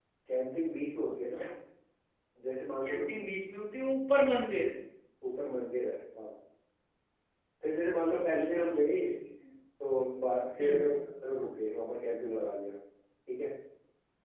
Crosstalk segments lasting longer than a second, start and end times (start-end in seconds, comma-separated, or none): 7.8-9.0